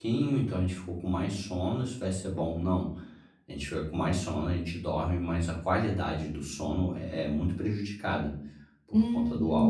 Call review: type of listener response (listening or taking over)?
taking over